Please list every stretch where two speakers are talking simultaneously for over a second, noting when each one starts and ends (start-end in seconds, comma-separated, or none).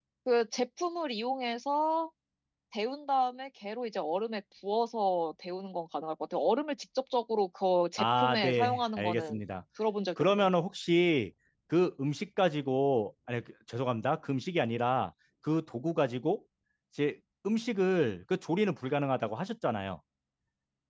8.0-9.4